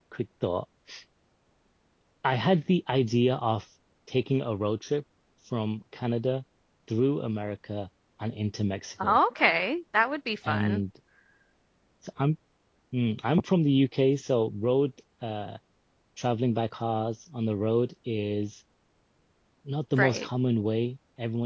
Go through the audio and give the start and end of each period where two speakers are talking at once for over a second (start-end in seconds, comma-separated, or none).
none